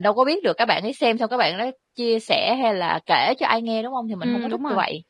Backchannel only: No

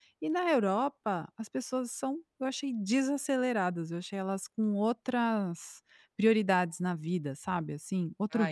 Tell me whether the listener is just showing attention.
No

